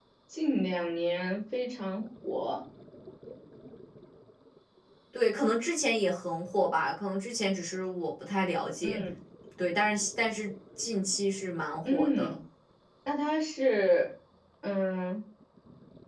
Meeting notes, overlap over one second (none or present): none